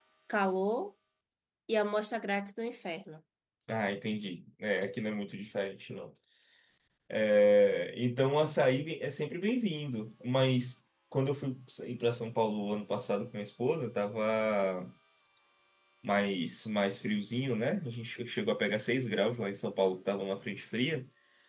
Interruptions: none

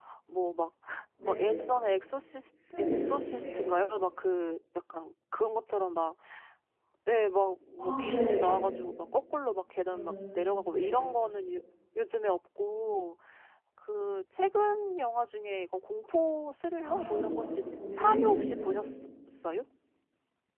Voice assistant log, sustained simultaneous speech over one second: present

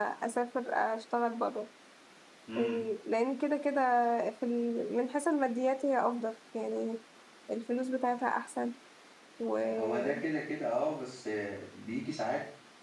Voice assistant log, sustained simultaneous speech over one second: none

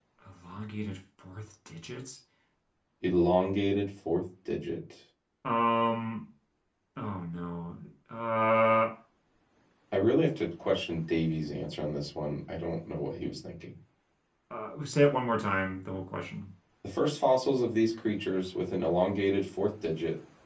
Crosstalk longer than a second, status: none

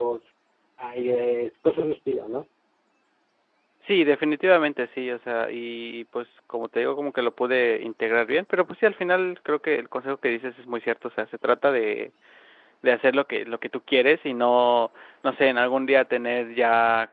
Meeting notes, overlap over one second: none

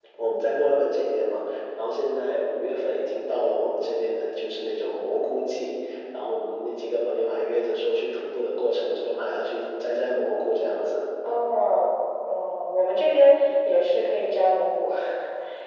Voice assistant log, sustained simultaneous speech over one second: none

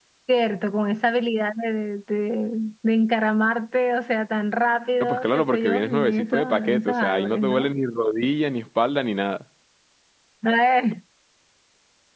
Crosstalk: present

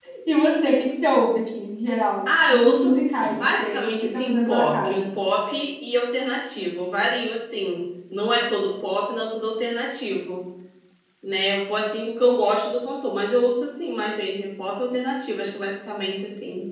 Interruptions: present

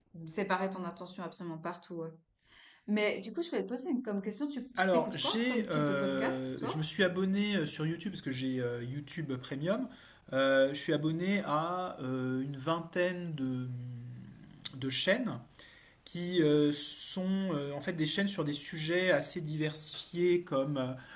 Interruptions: present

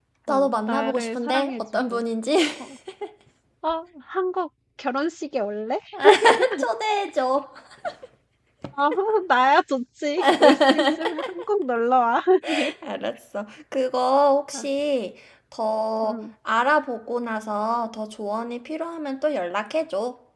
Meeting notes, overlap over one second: present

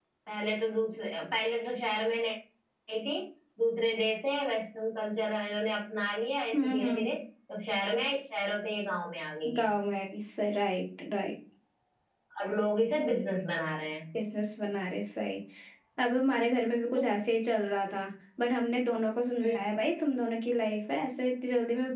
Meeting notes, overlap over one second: none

